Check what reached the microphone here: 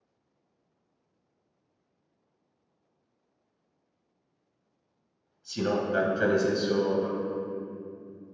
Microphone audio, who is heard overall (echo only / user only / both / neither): user only